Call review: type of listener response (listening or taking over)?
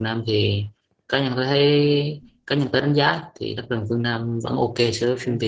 taking over